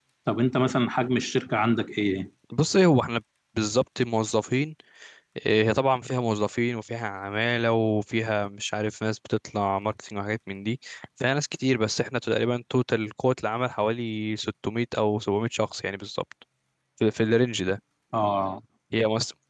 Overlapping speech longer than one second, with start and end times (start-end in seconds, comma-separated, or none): none